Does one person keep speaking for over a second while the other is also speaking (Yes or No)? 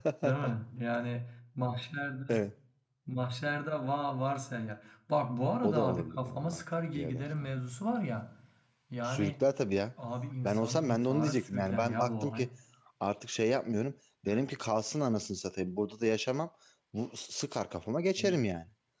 Yes